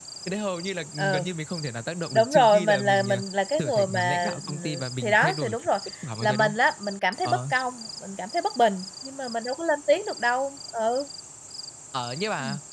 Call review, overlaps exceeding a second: present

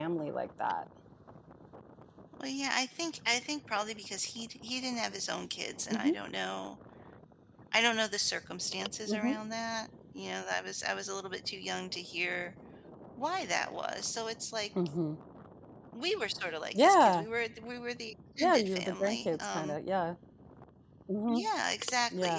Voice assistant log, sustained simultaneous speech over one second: present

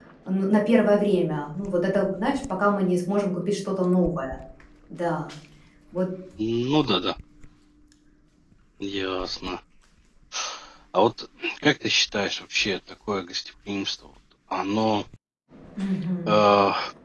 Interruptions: none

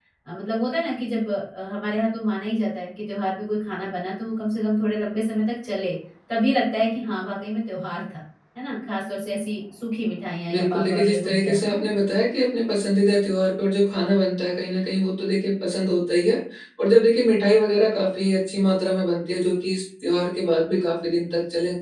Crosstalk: present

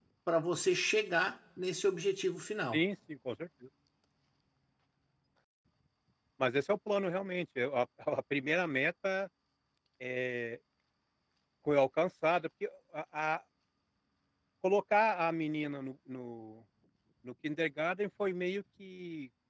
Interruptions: none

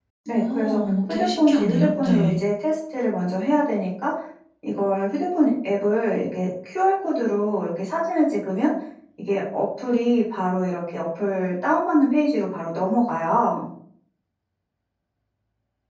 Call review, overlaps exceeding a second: present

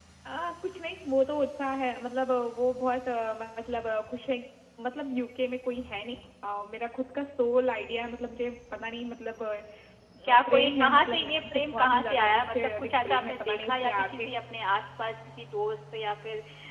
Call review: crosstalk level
present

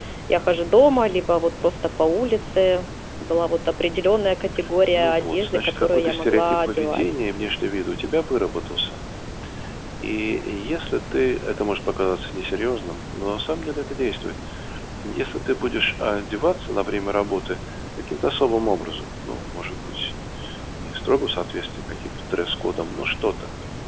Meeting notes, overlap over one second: present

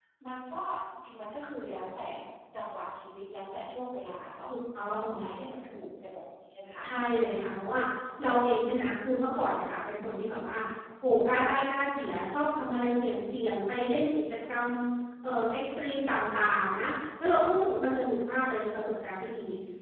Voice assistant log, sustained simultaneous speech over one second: none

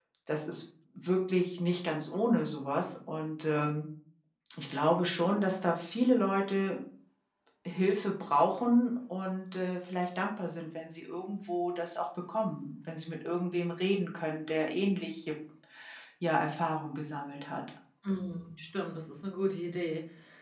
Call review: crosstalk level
none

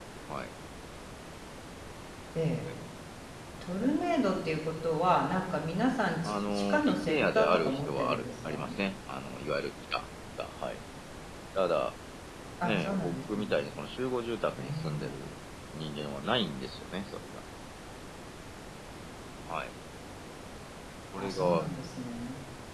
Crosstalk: present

